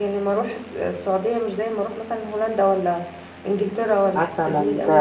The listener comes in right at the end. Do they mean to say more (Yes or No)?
Yes